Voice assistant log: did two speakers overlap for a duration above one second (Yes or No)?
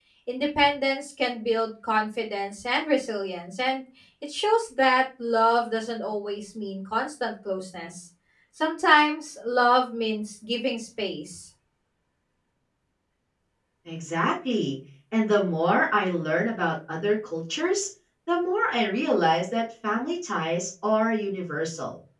No